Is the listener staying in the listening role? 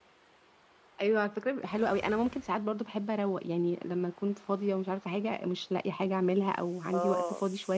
Yes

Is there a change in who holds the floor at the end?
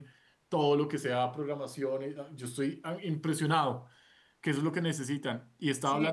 No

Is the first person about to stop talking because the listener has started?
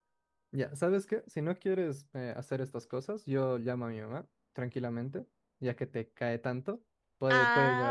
Yes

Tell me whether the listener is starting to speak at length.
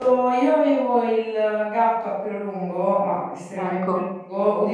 No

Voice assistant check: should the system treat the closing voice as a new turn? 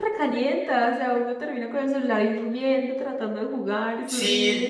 Yes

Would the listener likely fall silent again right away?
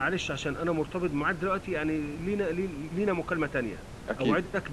Yes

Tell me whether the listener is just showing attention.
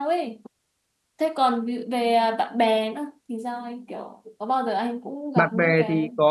No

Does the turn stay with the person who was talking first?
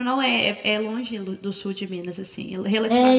No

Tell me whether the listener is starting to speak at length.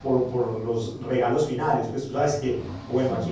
No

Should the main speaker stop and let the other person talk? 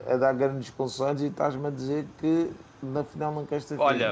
Yes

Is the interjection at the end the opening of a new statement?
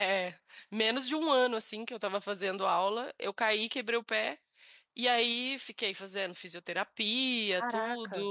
No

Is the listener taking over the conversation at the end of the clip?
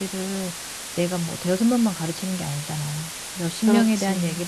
No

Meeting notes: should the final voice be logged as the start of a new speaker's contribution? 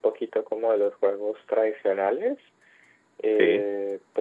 No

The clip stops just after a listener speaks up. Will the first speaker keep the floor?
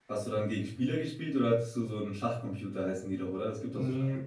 No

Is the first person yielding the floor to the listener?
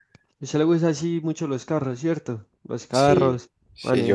Yes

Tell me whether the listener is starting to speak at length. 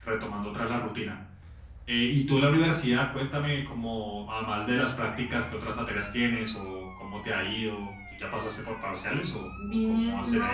Yes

